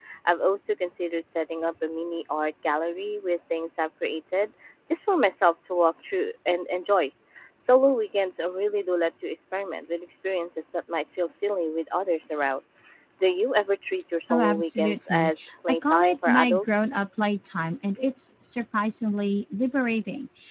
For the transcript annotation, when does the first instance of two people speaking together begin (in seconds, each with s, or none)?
14.3 s